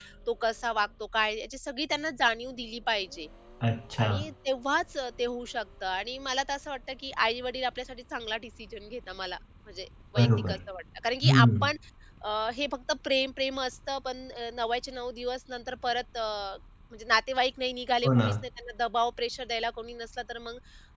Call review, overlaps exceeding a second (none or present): none